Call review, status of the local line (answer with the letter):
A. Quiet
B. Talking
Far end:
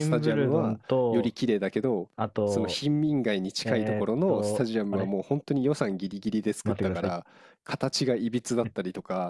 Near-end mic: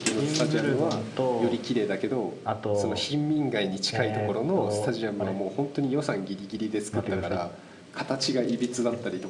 A